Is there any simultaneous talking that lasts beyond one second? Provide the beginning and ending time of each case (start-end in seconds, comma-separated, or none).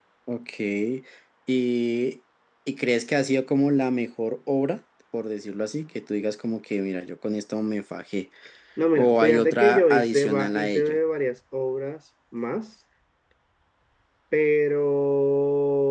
9.0-11.0